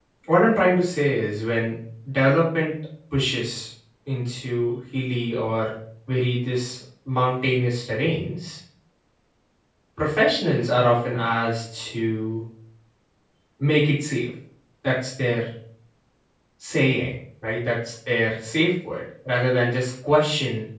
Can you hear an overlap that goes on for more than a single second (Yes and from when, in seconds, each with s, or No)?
No